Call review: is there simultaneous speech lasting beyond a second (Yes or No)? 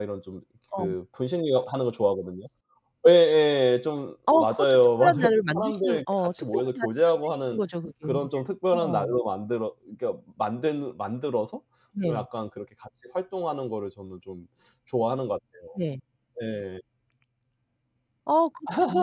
Yes